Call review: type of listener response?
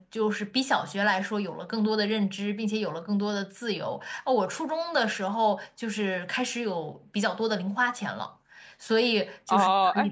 taking over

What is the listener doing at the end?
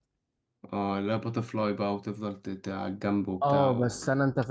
taking over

